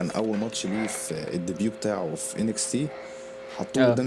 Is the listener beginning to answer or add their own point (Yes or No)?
No